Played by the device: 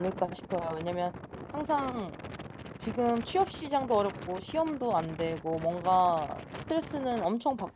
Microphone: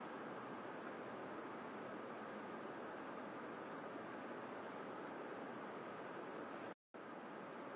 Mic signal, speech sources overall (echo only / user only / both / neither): neither